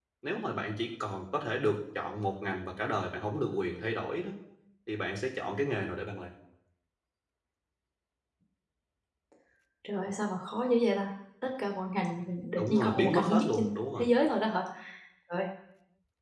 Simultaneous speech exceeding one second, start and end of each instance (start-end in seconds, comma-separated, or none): 12.6-14.1